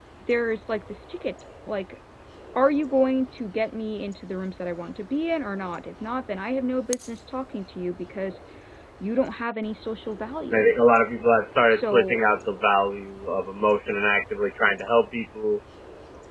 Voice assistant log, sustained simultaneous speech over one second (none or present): none